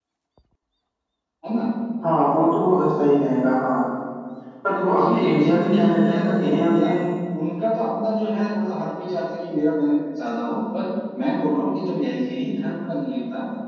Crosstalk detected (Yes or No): Yes